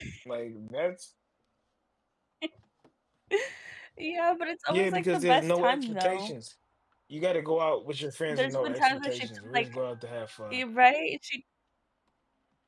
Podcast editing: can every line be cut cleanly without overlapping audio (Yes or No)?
No